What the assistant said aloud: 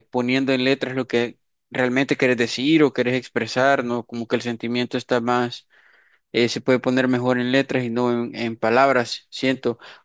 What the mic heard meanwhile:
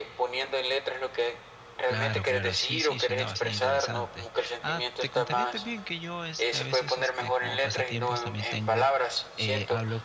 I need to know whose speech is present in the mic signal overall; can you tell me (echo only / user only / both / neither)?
both